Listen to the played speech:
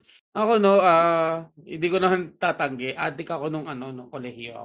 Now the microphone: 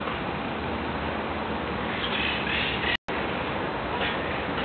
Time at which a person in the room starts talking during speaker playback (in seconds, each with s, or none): none